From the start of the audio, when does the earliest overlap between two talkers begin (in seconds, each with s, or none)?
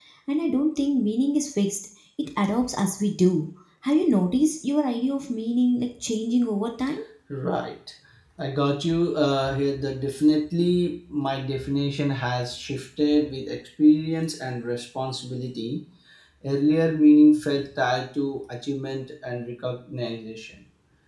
none